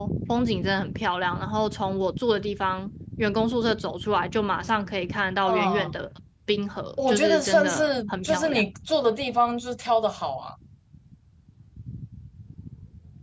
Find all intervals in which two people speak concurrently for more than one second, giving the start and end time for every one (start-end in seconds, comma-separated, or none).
7.0-8.6